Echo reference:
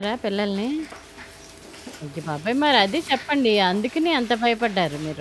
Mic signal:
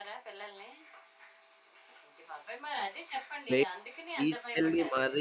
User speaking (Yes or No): Yes